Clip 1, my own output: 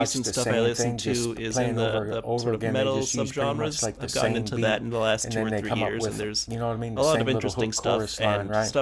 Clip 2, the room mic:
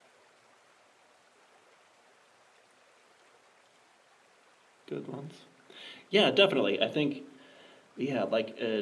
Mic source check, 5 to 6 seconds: user only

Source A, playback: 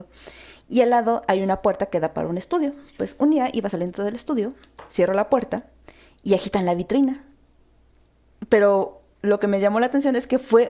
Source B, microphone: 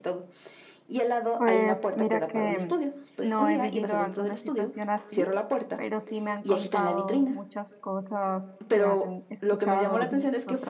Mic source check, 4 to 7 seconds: both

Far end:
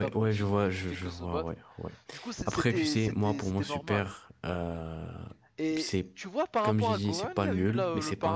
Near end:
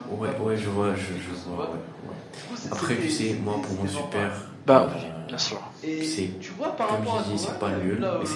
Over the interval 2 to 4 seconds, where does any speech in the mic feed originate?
echo only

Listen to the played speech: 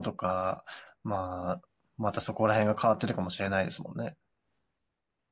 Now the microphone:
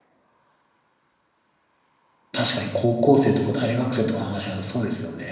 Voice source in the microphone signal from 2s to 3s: user only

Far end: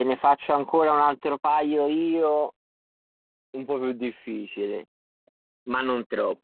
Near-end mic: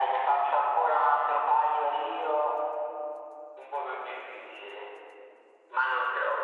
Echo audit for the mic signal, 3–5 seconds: echo only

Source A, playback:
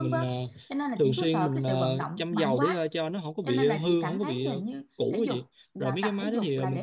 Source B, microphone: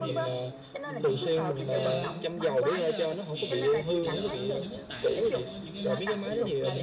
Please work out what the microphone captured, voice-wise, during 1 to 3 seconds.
both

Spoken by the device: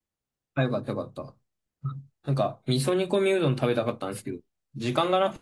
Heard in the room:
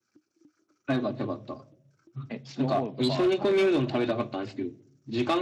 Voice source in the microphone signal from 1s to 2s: echo only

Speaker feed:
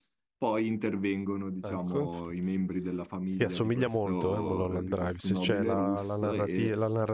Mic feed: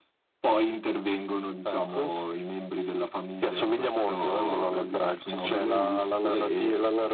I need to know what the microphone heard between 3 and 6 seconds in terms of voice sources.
echo only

